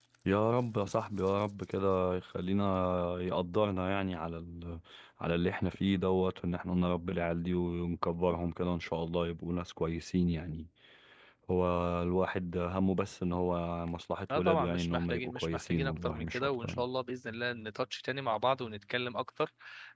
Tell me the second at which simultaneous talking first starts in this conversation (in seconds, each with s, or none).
14.3 s